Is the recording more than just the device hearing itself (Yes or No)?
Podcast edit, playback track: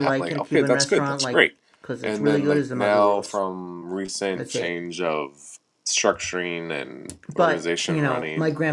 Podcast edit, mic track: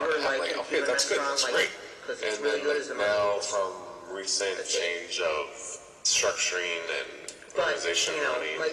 No